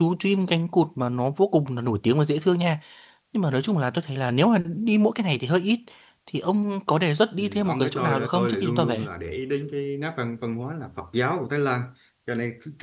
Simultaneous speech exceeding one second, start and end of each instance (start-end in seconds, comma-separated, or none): 7.4-9.1